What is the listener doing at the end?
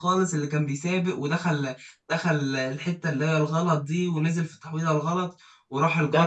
taking over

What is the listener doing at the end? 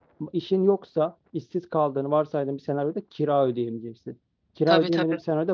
listening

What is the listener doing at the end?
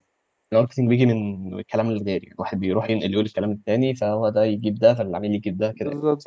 taking over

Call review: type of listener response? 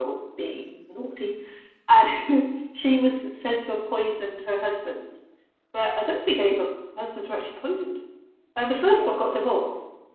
listening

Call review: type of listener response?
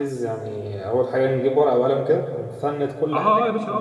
taking over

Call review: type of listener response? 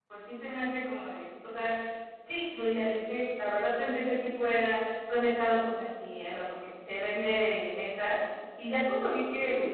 listening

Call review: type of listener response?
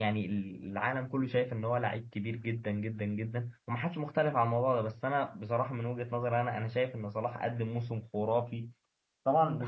listening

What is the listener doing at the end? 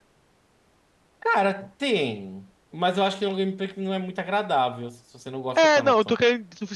taking over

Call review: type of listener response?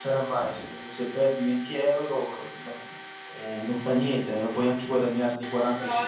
taking over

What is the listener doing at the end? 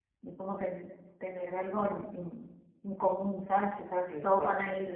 listening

